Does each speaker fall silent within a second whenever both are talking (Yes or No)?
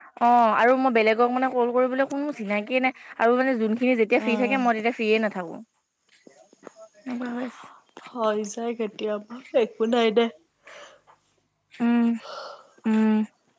Yes